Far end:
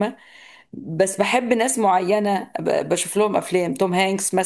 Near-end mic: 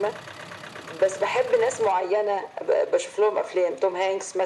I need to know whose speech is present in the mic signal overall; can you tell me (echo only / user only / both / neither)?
echo only